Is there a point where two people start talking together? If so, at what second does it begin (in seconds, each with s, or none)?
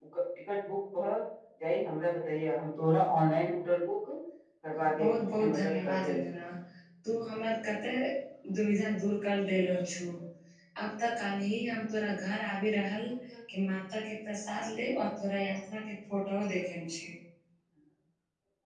4.8 s